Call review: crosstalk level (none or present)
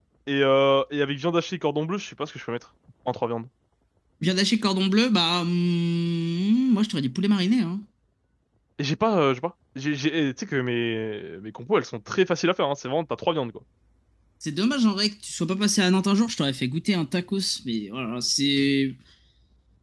none